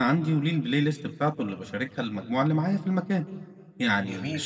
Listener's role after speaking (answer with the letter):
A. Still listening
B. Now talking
A